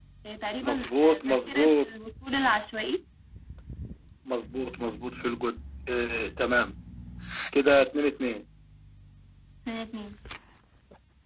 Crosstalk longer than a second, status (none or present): present